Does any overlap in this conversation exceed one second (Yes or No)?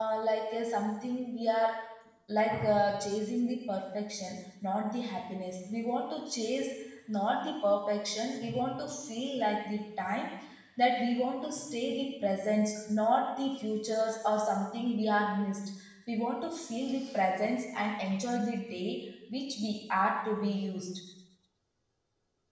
No